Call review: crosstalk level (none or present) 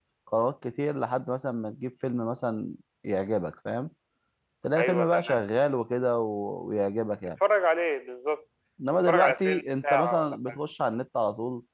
present